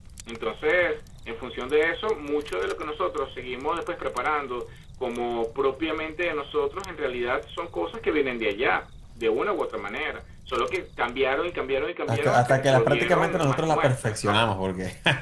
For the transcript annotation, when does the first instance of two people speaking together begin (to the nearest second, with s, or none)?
12 s